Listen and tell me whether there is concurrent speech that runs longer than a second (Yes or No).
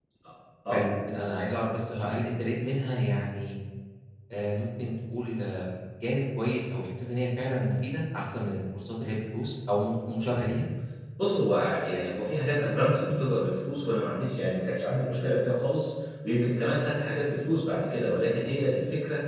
No